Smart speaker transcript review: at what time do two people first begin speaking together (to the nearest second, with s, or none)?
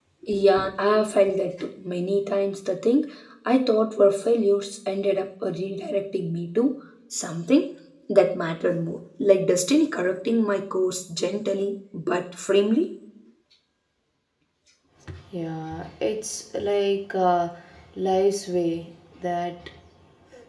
none